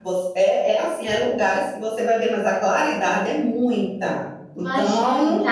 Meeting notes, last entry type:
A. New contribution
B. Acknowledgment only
A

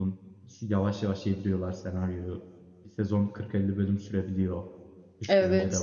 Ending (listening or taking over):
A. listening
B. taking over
B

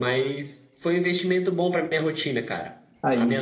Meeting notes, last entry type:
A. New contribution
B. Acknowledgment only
B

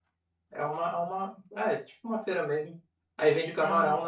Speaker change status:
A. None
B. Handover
A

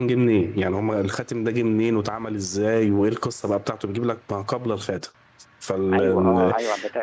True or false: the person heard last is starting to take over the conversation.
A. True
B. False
A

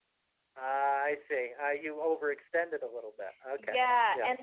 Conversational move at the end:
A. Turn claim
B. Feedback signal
A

